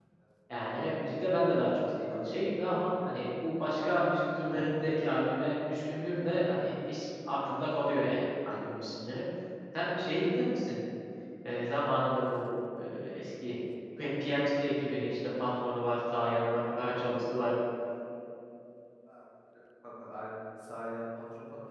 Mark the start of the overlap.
none

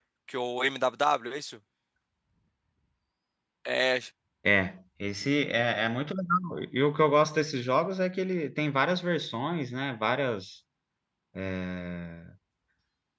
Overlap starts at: none

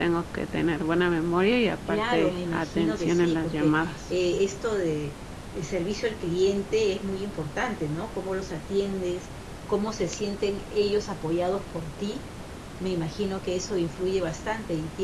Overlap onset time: 1.9 s

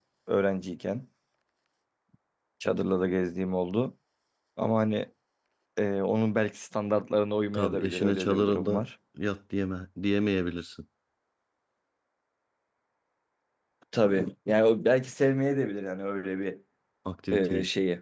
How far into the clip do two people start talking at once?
7.5 s

